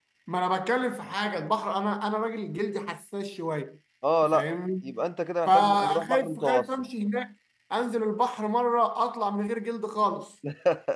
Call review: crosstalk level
present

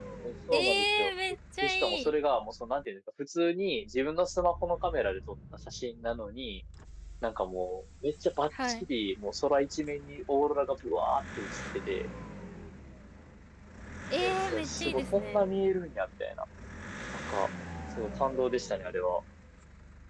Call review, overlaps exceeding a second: present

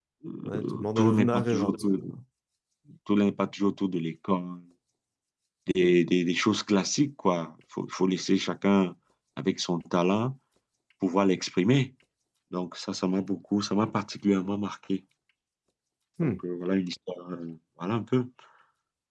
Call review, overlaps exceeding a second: present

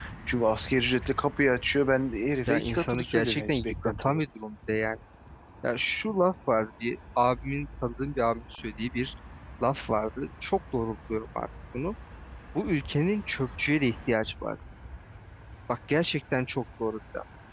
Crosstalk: present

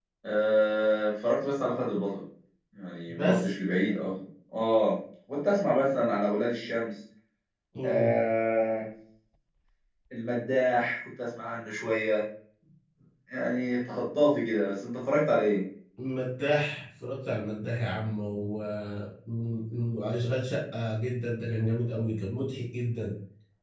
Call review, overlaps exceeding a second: none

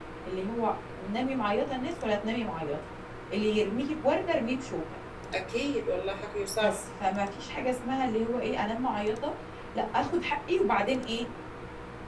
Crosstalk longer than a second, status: none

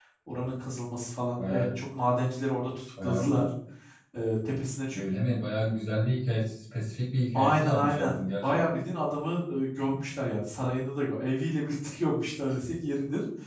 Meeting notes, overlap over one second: present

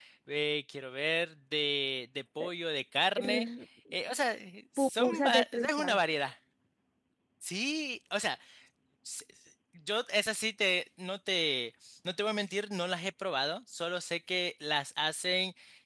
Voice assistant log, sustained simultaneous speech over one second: present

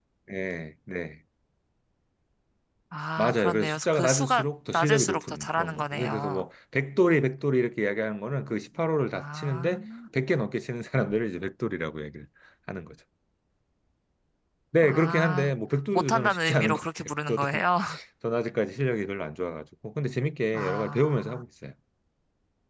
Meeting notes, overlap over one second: present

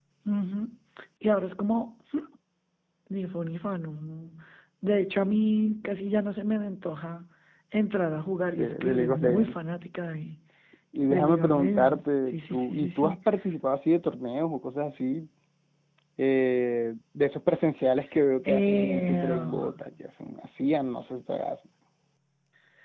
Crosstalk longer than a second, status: present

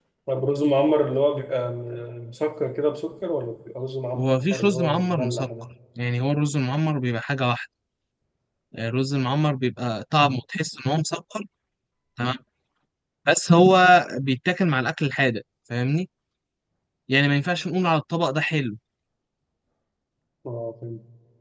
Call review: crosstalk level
present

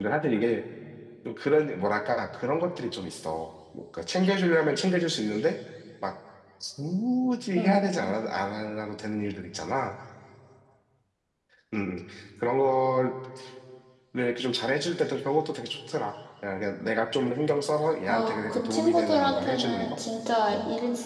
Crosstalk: present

